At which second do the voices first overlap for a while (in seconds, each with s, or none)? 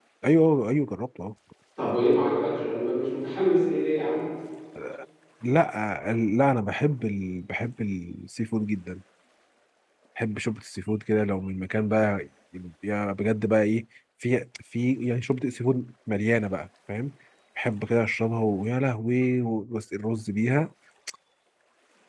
none